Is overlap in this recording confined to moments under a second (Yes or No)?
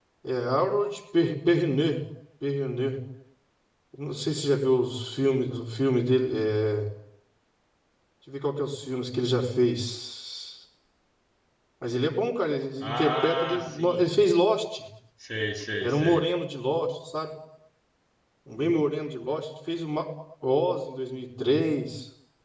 No